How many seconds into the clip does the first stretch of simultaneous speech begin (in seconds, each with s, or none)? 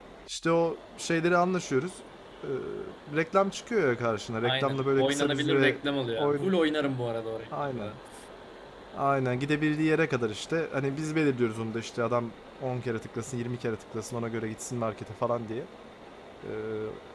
4.4 s